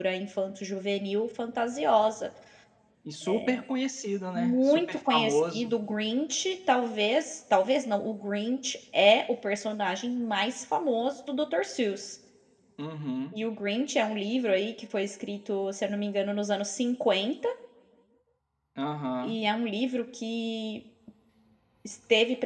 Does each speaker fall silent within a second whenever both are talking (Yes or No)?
No